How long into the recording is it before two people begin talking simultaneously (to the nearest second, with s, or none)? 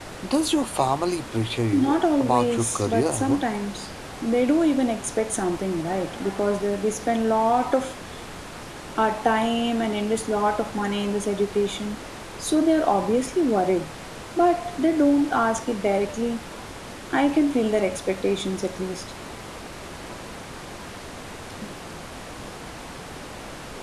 2 s